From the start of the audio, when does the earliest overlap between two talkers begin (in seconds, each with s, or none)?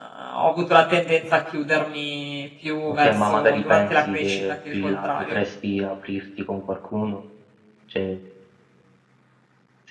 2.9 s